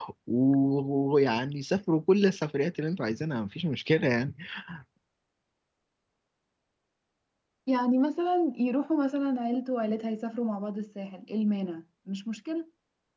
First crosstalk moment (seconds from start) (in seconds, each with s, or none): none